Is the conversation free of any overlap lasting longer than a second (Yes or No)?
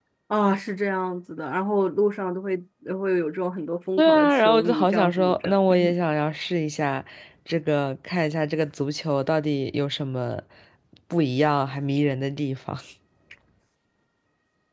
No